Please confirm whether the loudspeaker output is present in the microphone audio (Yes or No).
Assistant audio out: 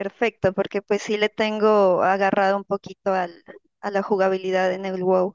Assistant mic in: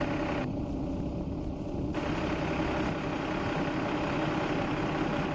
No